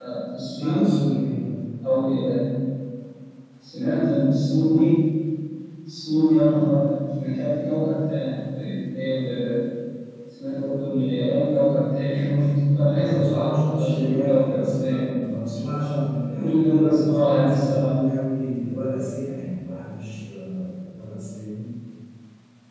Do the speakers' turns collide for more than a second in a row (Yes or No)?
Yes